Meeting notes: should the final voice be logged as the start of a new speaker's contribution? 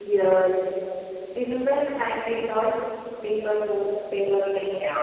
Yes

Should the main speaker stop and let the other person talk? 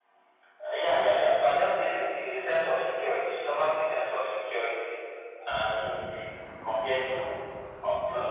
No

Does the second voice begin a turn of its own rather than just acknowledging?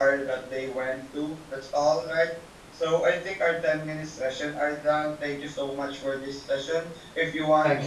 No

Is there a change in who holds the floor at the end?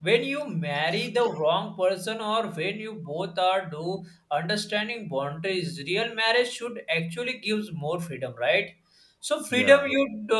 No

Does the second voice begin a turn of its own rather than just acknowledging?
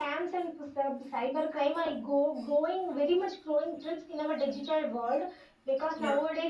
No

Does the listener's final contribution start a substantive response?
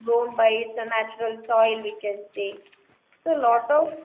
No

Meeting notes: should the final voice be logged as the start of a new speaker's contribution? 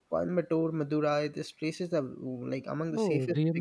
Yes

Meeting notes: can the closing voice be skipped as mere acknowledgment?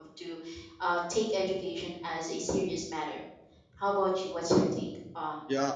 No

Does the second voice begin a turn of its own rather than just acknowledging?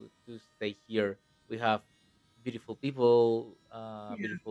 No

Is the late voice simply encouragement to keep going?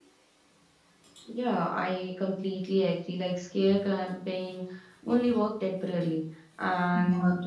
Yes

